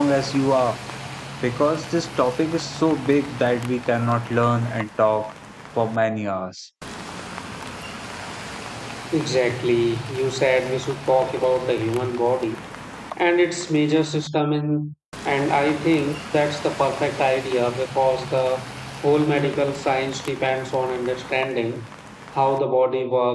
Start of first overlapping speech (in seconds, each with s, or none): none